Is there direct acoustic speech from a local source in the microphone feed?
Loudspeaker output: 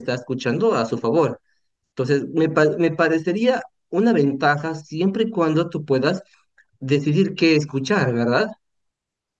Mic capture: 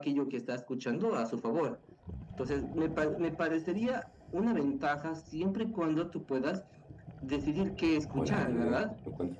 Yes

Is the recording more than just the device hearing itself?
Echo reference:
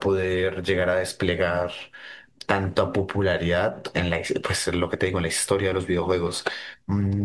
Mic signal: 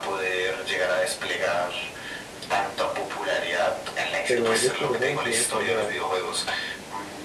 Yes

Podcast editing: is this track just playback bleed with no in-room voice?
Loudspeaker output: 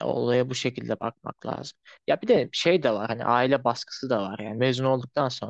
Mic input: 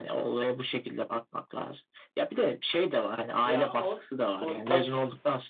No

